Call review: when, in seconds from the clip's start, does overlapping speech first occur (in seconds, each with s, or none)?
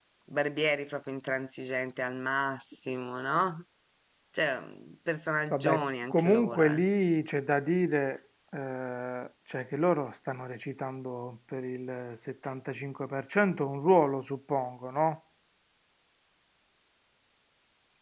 5.5 s